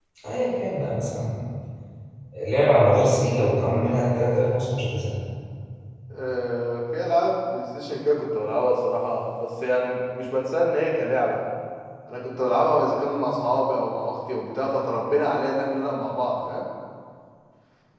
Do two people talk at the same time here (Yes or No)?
No